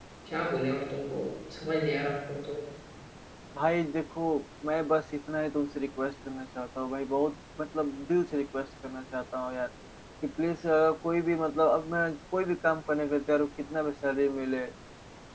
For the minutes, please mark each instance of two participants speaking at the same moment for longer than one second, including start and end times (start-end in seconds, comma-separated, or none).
none